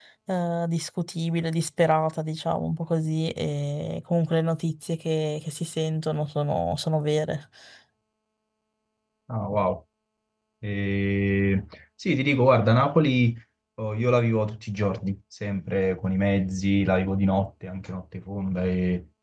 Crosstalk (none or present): none